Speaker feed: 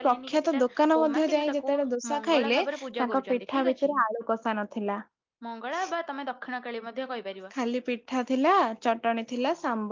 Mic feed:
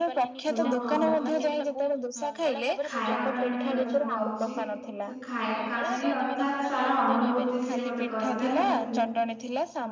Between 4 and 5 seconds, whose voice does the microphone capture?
both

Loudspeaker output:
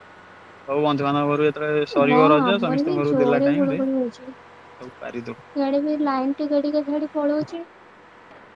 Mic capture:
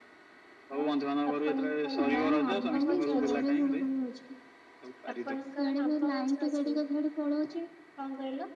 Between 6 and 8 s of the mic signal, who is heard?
both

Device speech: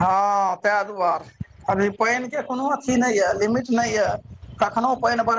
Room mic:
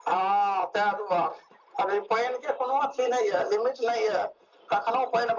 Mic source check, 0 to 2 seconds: echo only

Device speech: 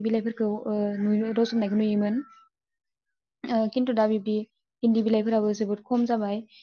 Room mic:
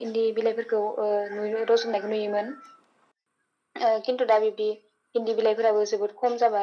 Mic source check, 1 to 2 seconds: echo only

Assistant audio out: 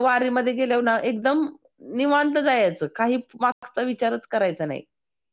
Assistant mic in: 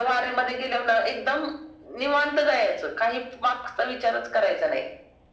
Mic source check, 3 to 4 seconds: echo only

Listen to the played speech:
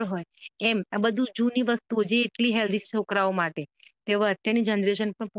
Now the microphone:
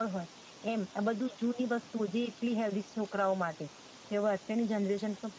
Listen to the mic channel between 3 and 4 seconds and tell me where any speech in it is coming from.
echo only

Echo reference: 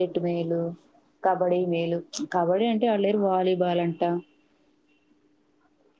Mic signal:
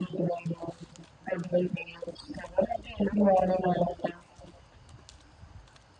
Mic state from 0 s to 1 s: echo only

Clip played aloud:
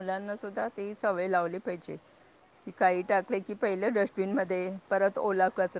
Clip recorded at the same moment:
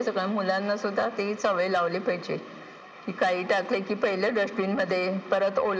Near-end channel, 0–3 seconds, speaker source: echo only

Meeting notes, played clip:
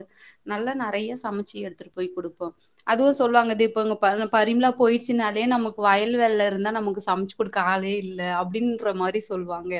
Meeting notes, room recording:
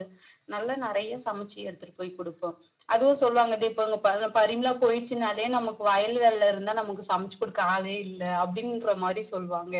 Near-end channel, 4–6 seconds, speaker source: echo only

